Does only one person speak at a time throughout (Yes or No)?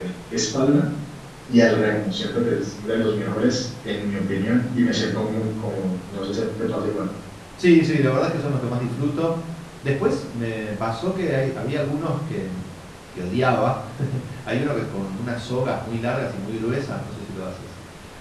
Yes